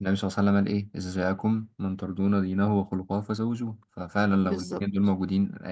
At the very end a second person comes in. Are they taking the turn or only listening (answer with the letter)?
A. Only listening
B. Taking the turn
A